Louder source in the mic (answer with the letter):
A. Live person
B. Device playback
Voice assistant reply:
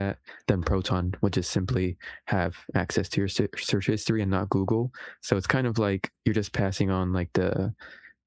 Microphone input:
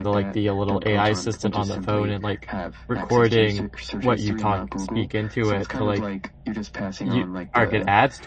A